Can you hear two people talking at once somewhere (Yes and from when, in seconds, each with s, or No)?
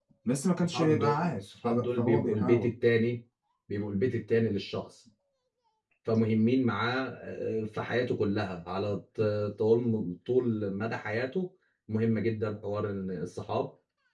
Yes, from 0.6 s